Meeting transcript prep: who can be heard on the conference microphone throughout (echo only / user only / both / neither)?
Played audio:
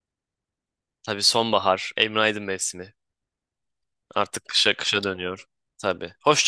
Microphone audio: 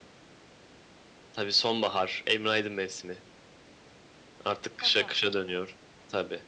both